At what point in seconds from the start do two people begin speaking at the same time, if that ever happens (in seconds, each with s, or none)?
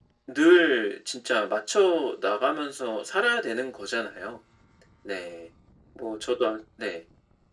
none